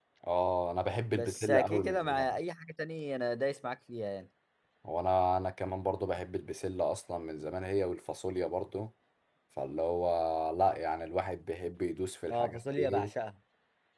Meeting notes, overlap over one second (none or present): present